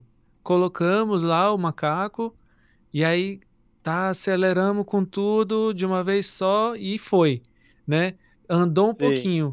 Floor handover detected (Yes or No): No